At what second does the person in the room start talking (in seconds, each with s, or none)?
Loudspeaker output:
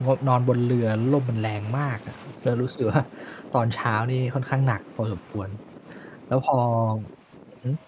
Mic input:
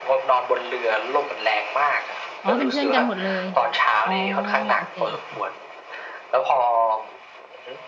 2.4 s